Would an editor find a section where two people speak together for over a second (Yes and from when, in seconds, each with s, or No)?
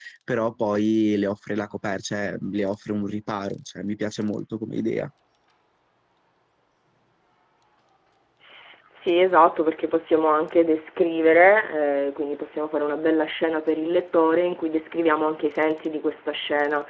No